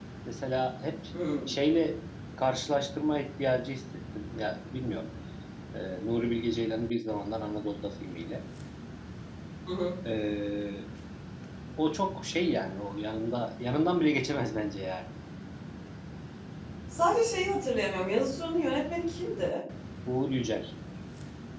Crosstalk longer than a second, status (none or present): none